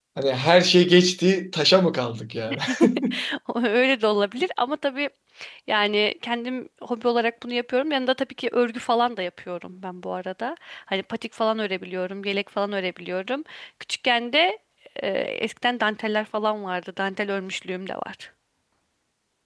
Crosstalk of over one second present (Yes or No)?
No